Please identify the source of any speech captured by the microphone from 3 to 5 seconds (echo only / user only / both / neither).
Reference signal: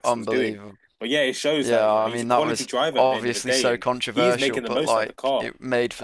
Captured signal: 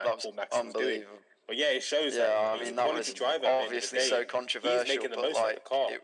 both